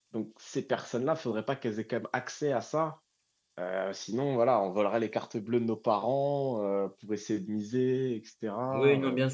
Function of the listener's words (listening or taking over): taking over